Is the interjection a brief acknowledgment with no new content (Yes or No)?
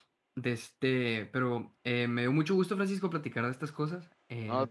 Yes